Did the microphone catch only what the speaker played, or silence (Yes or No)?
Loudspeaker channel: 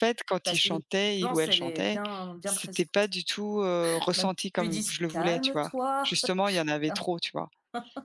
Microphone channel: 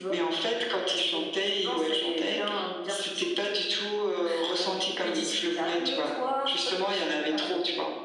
Yes